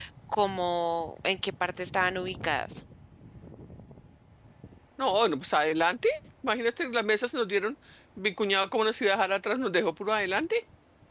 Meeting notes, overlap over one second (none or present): none